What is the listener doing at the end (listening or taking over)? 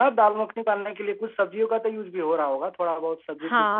taking over